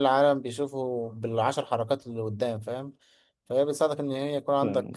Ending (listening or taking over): listening